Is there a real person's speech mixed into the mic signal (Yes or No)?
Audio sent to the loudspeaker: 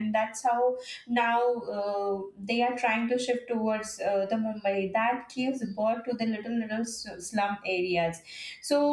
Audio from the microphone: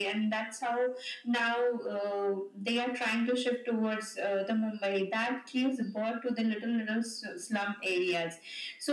No